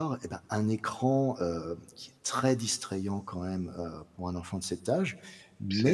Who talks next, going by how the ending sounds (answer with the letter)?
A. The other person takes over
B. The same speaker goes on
B